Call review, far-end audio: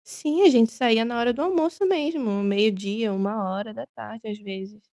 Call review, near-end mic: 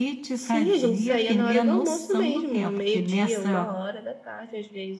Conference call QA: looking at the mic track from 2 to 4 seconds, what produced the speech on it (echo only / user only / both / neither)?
both